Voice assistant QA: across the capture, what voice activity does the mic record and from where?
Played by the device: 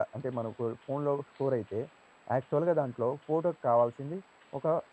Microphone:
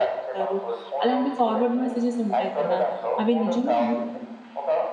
both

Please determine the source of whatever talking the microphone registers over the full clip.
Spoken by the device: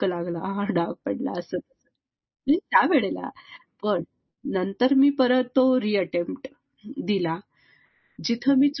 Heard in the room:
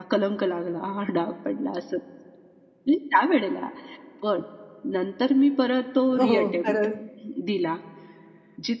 both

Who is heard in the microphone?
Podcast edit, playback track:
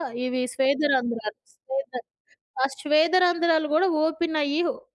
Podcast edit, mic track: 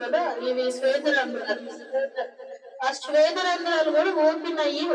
echo only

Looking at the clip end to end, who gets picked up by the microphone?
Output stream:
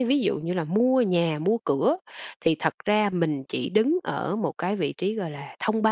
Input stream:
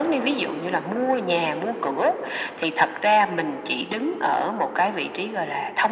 echo only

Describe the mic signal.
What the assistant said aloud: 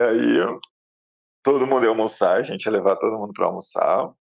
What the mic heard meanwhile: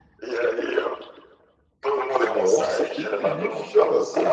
both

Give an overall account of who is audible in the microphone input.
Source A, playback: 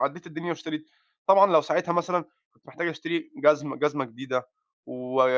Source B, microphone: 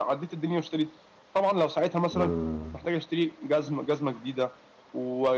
both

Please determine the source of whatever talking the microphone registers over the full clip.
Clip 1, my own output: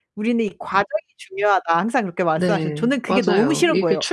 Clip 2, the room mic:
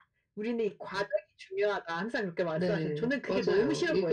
echo only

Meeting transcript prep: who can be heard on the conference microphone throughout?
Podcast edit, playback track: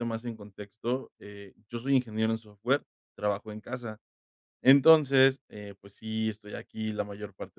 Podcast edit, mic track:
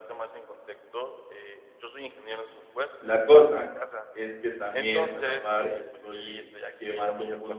both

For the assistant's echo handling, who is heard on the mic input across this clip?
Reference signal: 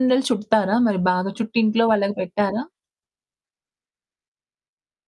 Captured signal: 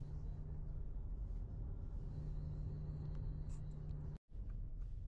neither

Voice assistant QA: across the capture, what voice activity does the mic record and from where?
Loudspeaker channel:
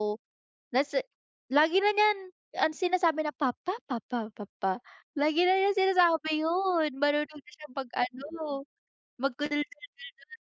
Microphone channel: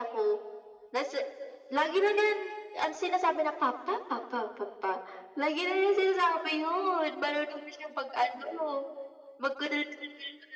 echo only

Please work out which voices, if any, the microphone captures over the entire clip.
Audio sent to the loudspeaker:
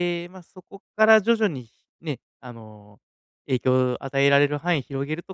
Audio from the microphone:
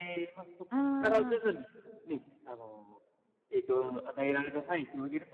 both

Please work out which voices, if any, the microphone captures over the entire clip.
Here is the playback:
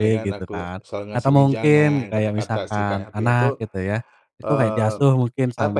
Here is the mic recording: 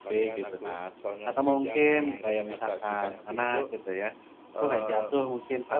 echo only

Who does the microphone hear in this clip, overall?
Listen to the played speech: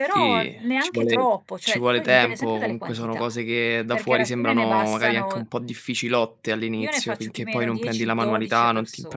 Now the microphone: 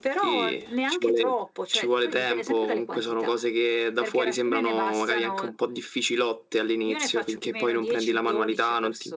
echo only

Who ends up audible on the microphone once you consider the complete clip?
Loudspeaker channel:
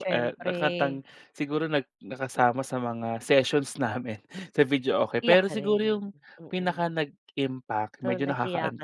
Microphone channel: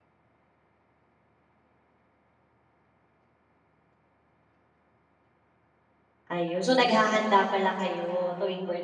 user only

